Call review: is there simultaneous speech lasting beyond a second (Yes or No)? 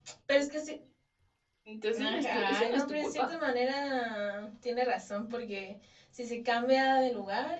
Yes